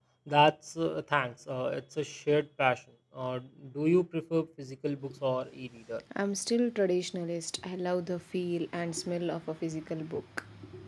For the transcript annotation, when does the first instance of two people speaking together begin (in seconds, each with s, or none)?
none